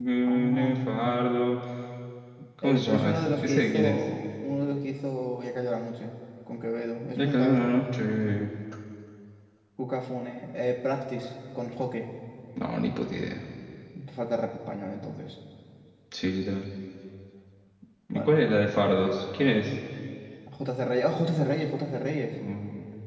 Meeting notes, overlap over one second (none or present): present